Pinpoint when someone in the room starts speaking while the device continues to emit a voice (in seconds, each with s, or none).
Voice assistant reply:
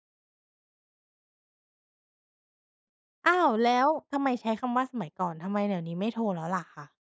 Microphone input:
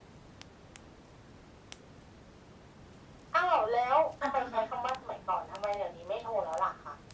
4.2 s